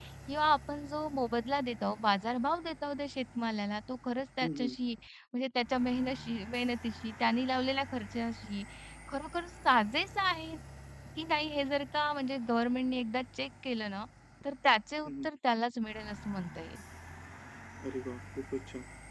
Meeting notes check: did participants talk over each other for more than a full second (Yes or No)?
No